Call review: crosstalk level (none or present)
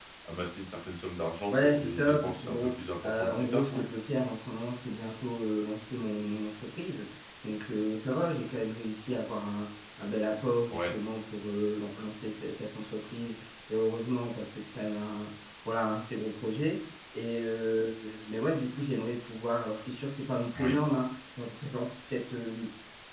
present